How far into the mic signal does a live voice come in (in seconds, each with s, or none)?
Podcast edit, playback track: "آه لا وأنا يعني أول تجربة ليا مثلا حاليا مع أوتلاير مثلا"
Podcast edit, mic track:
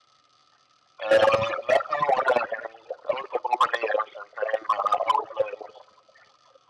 none